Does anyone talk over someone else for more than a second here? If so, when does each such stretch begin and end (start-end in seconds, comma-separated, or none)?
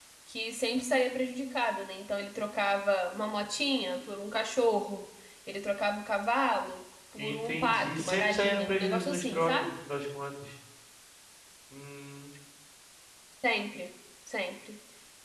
7.2-9.7